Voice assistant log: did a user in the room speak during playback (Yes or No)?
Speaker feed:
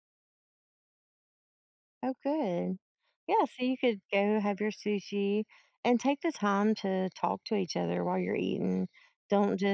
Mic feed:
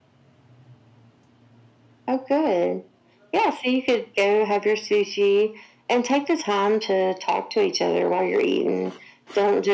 No